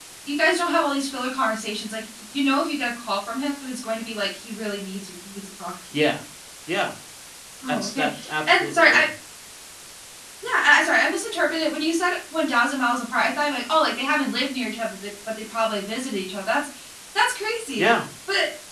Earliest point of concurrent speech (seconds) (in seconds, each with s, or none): 7.7 s